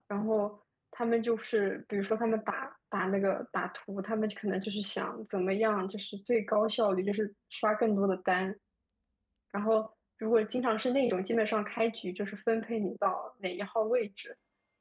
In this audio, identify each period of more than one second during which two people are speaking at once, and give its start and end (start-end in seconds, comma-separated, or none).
none